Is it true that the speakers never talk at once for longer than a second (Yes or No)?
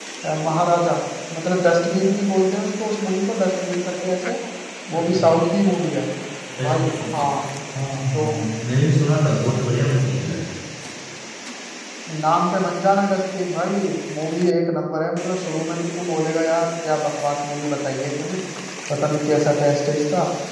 Yes